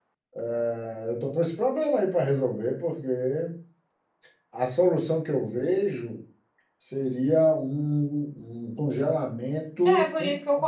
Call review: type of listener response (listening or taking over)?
taking over